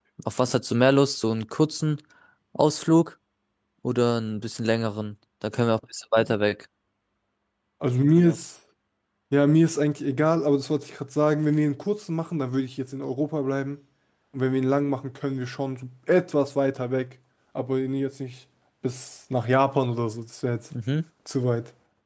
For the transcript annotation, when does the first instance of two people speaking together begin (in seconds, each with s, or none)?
none